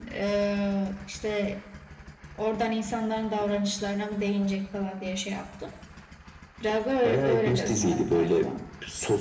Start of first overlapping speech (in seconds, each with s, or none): 7.0 s